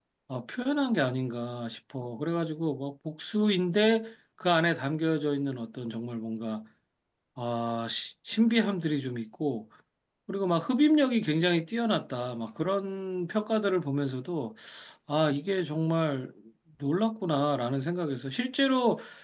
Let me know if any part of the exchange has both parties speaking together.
No

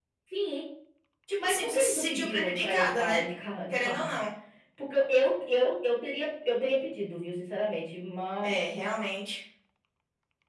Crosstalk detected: Yes, from 1.4 s

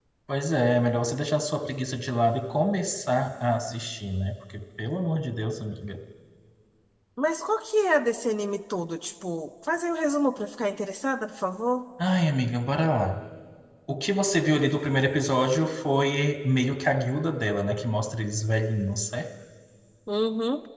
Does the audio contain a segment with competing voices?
No

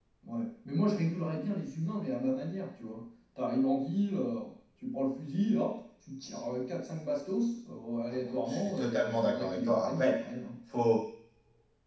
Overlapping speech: Yes, from 8.2 s

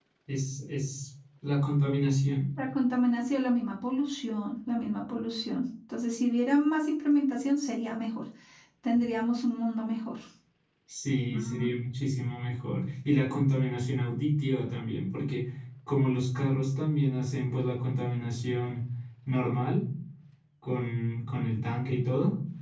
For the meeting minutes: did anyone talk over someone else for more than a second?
No

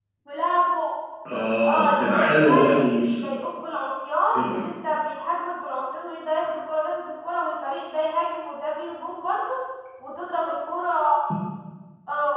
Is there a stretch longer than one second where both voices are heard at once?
Yes, from 1.6 s

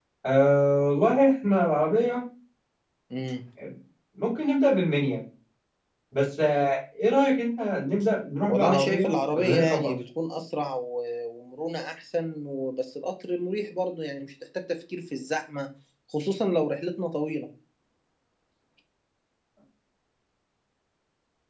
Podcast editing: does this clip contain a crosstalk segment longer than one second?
Yes, from 8.4 s

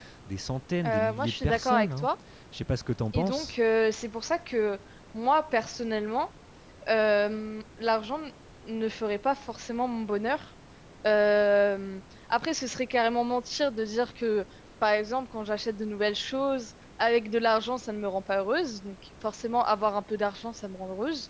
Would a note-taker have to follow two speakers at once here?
Yes, from 0.8 s

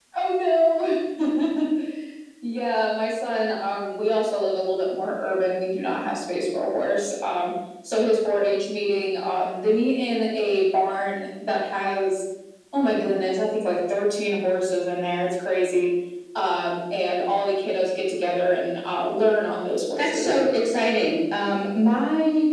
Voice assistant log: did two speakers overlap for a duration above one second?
No

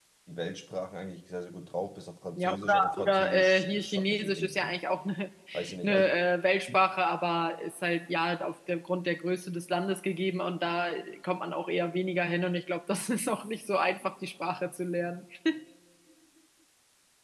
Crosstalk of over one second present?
Yes, from 2.4 s

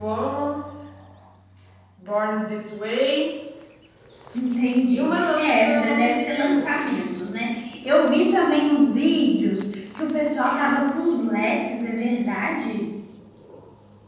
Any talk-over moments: Yes, from 4.9 s

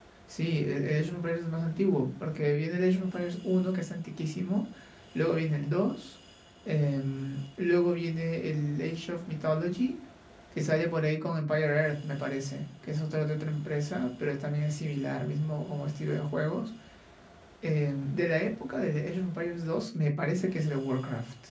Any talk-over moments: No

